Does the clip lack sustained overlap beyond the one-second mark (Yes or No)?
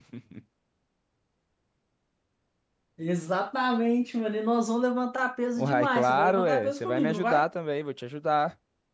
No